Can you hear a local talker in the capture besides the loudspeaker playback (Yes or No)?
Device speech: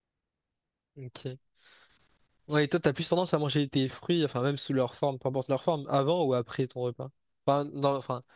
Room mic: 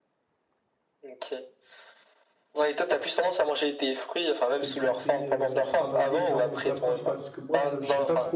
Yes